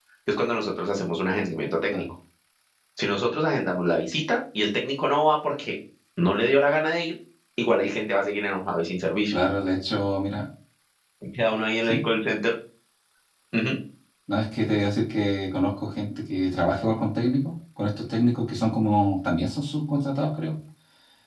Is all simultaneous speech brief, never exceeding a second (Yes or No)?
Yes